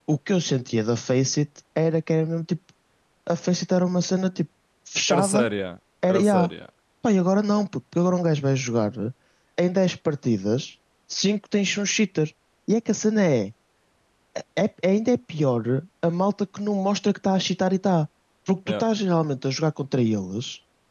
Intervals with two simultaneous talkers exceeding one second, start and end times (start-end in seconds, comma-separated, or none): none